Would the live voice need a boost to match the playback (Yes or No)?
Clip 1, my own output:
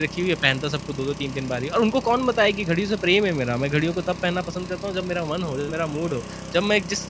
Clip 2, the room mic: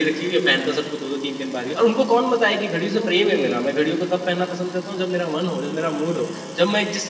Yes